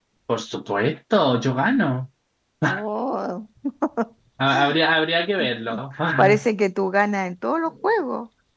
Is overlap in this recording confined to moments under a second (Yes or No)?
Yes